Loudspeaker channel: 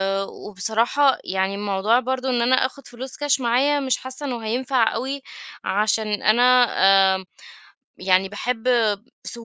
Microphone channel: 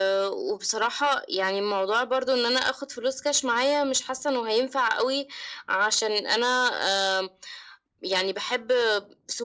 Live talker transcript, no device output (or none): none